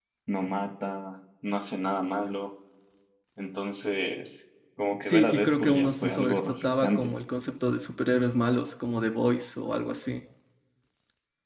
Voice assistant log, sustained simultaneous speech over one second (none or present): present